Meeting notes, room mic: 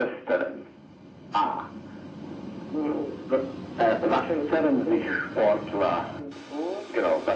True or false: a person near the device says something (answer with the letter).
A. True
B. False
B